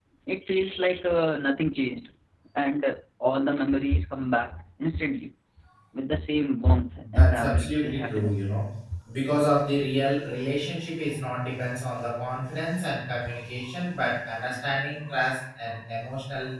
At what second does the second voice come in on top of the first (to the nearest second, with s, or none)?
7 s